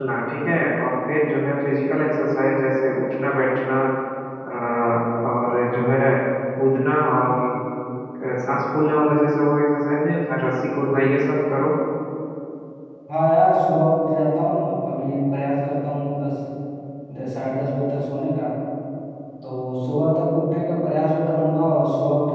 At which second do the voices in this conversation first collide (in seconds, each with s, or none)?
none